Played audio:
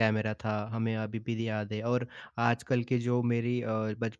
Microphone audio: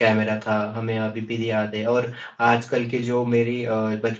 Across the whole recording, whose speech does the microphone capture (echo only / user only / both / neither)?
echo only